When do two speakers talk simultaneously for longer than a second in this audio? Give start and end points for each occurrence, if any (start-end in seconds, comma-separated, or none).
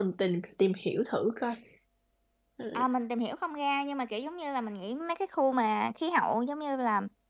none